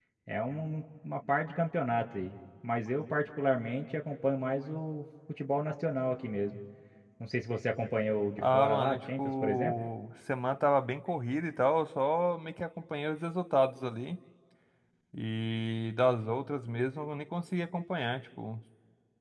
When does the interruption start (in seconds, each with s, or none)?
8.4 s